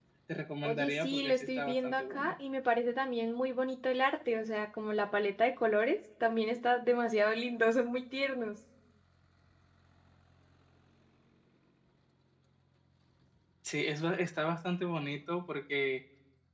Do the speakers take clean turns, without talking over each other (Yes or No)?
No